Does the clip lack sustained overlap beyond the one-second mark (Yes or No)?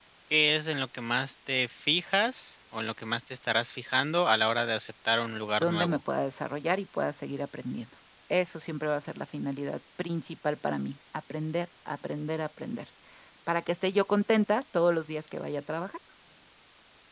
Yes